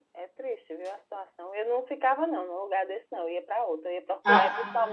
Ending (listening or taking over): listening